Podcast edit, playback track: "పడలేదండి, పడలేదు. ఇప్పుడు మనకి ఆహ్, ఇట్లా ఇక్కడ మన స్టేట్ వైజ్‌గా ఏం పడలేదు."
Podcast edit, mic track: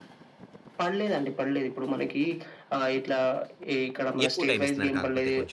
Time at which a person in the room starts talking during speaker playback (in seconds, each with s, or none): 4.3 s